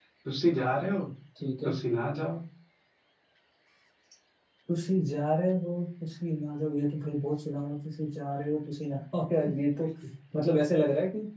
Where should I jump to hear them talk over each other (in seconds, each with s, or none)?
none